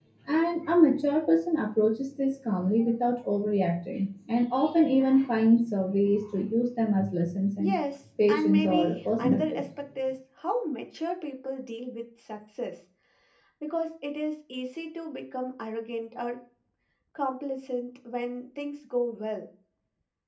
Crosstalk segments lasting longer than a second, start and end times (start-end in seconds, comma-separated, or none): 8.3-9.6